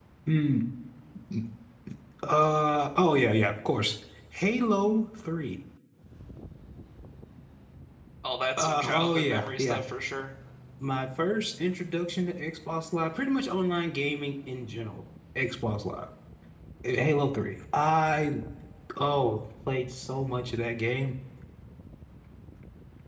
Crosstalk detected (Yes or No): Yes